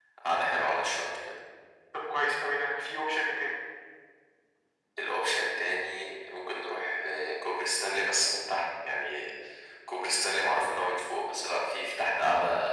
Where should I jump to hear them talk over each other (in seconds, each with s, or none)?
none